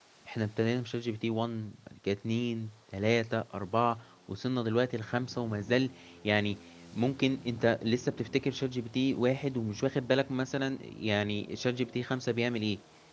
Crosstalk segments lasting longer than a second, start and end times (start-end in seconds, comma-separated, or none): none